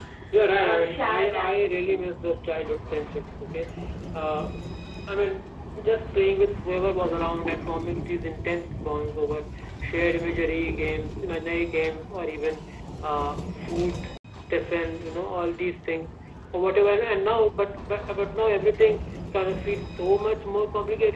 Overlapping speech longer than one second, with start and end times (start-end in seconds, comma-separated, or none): 0.6-2.0